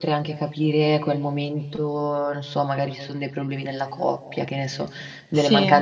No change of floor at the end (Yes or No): Yes